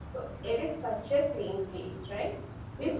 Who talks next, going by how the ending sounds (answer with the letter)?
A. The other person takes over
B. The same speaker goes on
B